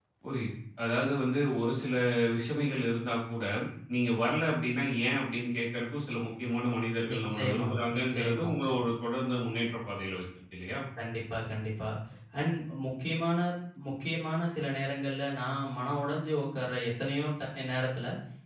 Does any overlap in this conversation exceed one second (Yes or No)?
Yes